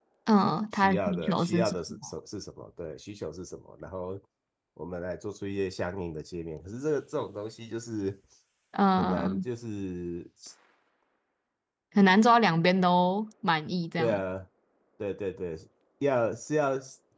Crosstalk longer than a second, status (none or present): present